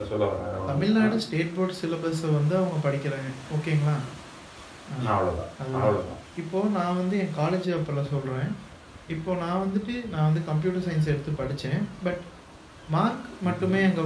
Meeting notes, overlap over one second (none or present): none